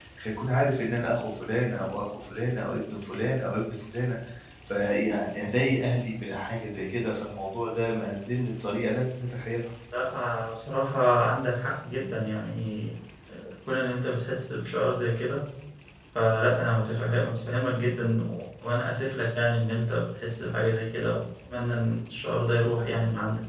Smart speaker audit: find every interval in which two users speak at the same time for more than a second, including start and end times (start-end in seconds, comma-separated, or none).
none